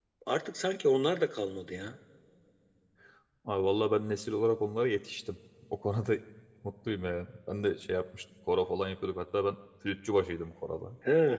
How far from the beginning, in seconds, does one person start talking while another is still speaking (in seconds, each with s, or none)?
none